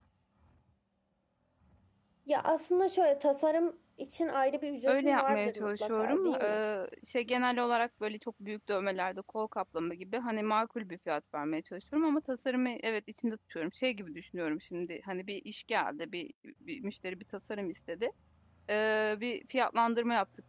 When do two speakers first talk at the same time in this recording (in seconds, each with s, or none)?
4.9 s